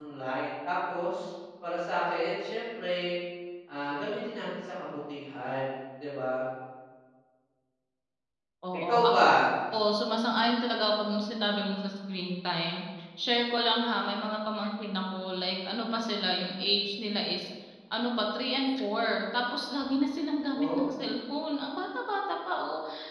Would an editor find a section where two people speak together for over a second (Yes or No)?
No